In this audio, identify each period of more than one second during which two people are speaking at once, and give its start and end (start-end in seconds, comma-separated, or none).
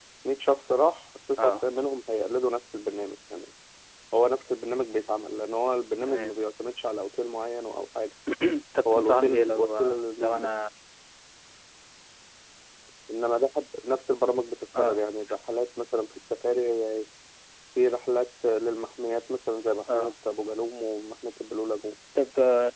8.9-10.5